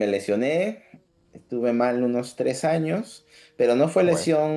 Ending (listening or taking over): listening